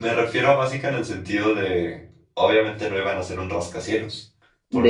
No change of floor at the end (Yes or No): Yes